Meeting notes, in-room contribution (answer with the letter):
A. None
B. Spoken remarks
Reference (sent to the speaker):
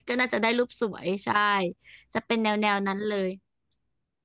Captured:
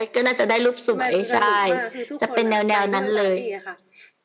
B